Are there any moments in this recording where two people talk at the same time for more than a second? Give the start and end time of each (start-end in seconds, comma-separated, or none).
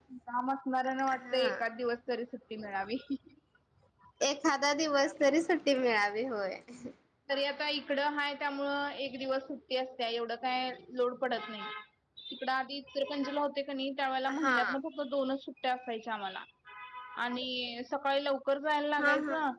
none